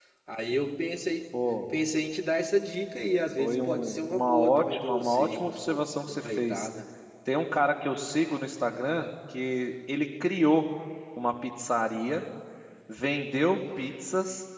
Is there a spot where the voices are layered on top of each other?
Yes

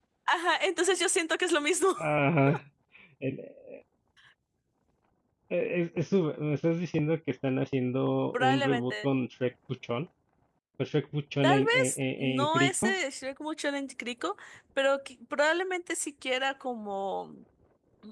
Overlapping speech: Yes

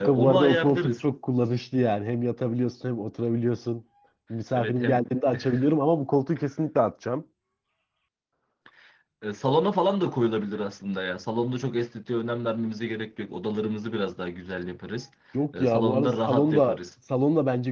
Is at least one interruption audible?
Yes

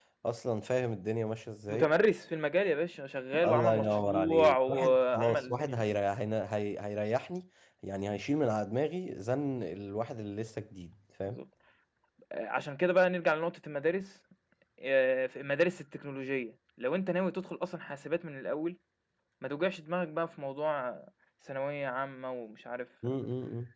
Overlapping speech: Yes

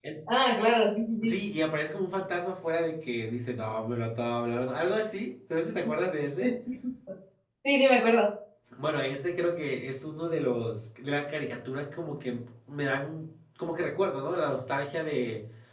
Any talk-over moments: No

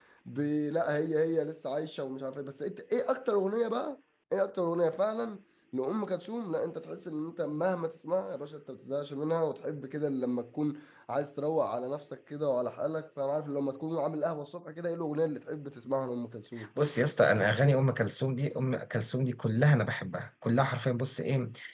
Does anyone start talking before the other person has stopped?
No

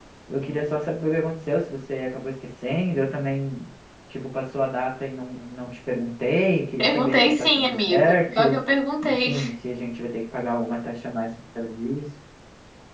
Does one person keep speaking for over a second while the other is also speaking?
Yes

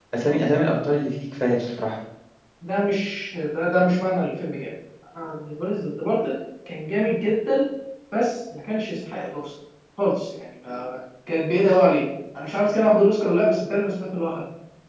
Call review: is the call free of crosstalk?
Yes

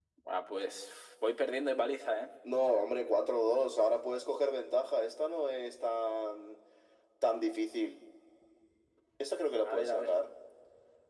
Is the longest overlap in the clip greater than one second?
No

